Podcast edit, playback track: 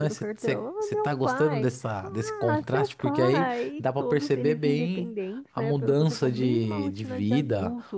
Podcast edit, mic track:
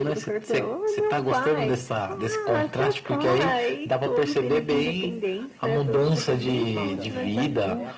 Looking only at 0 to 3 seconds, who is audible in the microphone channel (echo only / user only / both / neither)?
echo only